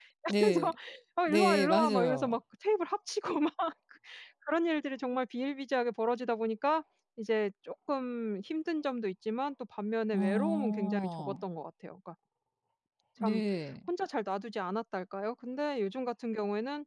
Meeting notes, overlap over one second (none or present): present